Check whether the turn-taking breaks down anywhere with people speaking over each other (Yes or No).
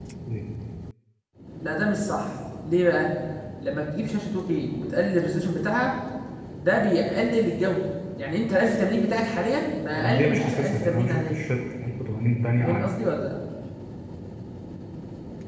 Yes